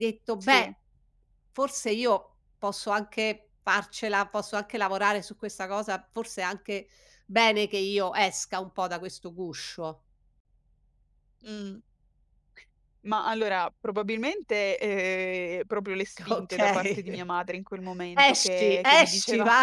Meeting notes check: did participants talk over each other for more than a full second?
Yes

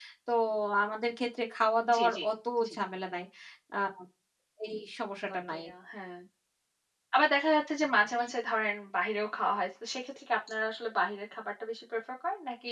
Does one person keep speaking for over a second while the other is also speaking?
No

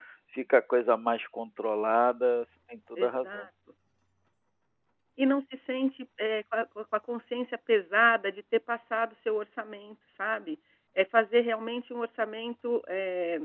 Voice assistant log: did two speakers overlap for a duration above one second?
No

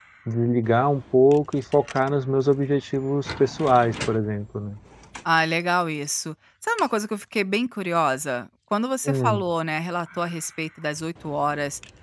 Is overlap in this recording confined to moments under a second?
Yes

